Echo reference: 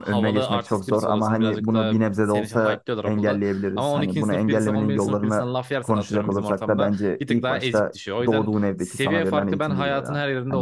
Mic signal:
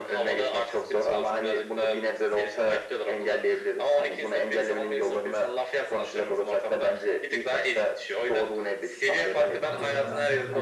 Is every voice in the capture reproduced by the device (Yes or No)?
No